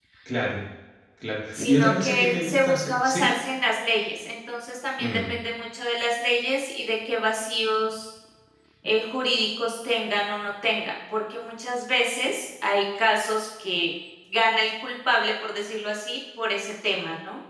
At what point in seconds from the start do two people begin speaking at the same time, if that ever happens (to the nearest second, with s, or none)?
2 s